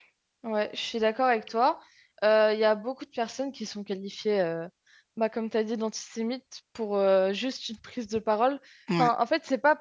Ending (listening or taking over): listening